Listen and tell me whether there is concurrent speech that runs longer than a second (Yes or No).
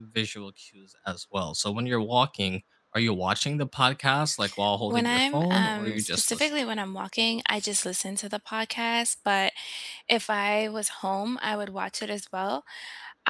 Yes